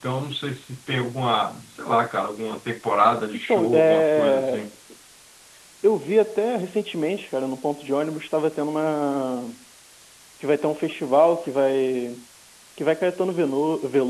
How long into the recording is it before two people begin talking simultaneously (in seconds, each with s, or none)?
3.3 s